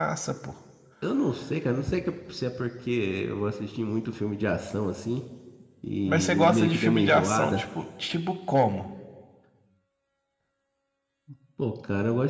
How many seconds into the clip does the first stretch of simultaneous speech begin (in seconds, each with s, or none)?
6.1 s